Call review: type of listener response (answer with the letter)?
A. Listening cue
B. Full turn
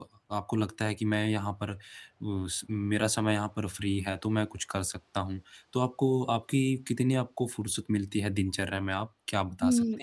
B